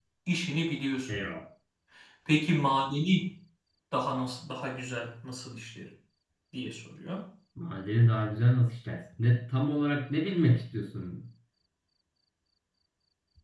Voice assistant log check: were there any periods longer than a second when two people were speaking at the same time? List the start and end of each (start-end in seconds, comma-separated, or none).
none